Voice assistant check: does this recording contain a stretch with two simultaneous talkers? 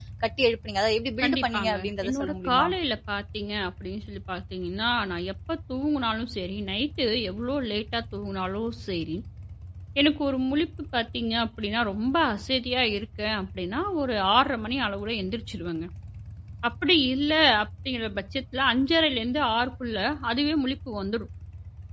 Yes, from 1.2 s

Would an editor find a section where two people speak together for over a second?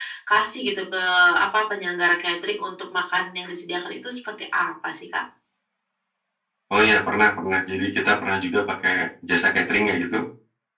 No

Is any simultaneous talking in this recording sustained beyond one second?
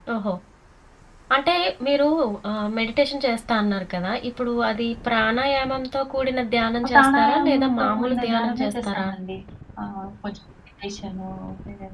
Yes, from 6.8 s

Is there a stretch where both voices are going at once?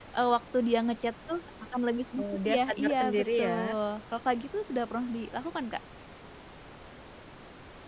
Yes, from 2.2 s

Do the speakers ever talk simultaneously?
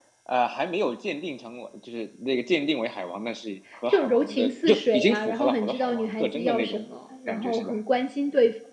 Yes, from 3.9 s

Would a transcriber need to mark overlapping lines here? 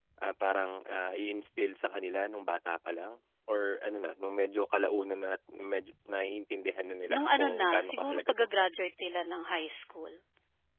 Yes, from 7.1 s

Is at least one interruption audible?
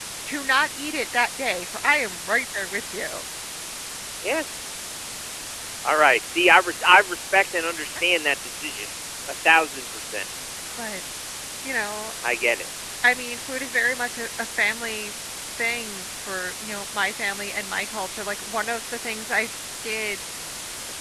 No

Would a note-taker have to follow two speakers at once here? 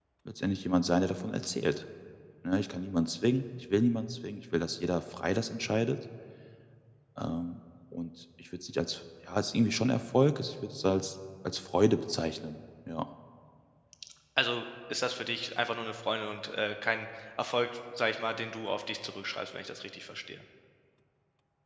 No

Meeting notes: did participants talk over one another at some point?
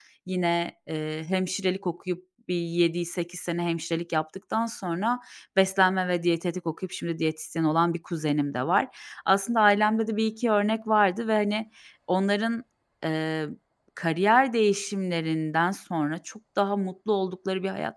No

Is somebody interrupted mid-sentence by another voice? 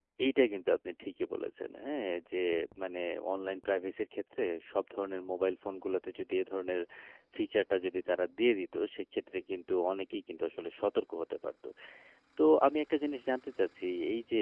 No

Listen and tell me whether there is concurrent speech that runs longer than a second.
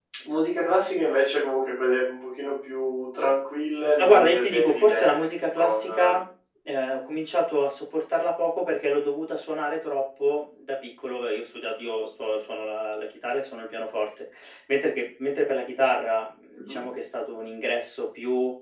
Yes, from 4.0 s

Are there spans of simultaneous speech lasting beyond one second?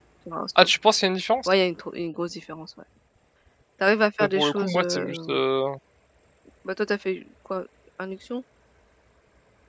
Yes, from 4.2 s

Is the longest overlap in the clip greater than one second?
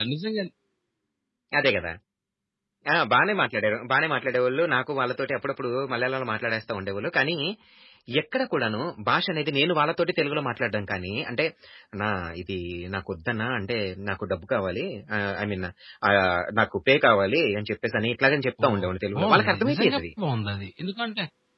Yes, from 18.6 s

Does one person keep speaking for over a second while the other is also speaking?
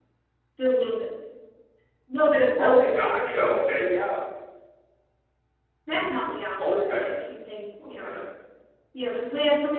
Yes, from 2.6 s

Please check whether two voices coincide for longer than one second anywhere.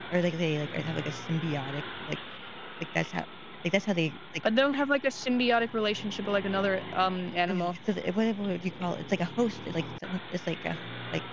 No

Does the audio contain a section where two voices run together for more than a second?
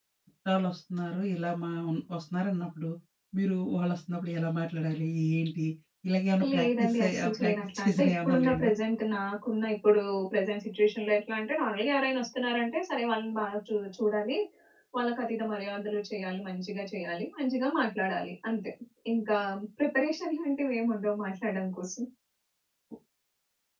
Yes, from 6.5 s

